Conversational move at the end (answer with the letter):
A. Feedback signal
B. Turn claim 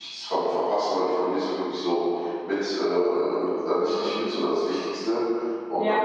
A